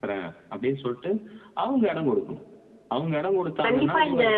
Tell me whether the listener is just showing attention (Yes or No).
No